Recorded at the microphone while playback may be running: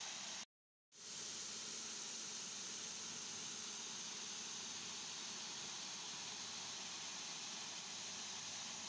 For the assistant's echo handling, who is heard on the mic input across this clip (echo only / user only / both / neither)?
neither